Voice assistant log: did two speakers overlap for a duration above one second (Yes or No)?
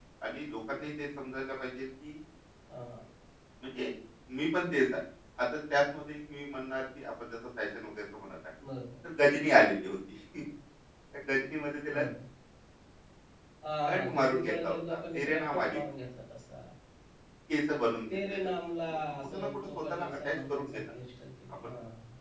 Yes